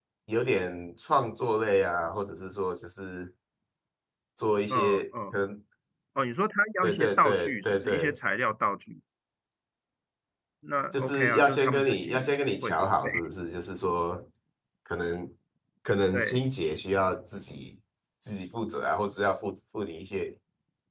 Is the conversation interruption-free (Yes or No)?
No